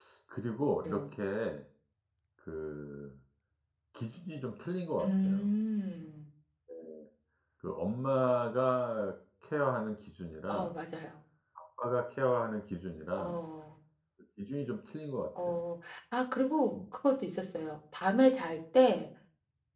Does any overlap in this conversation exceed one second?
No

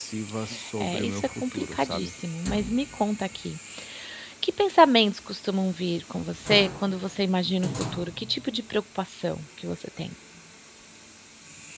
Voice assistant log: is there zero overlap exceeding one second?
No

